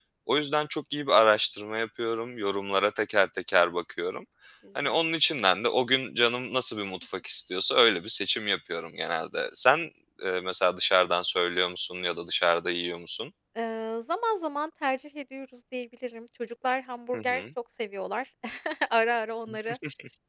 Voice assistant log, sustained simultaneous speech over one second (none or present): none